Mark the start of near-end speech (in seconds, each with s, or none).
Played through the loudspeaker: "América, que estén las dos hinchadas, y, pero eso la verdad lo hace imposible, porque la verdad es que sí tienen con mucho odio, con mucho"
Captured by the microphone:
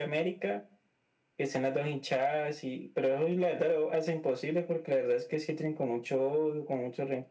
none